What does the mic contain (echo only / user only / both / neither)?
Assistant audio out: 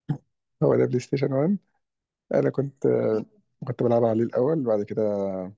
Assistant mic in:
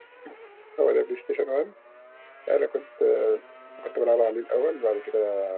echo only